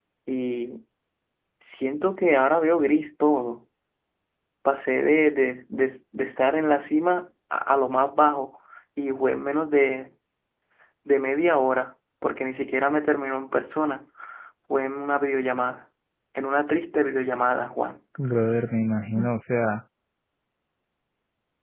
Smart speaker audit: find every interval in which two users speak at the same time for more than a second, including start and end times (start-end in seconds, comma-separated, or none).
none